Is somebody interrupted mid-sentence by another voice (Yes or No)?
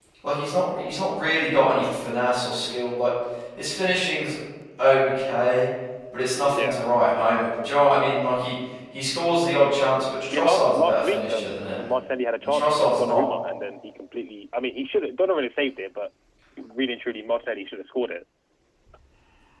Yes